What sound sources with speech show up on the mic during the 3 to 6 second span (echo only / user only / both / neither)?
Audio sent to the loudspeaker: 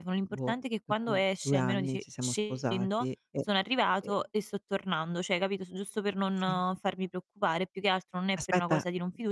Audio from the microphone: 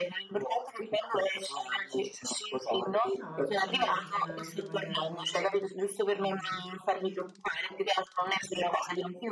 both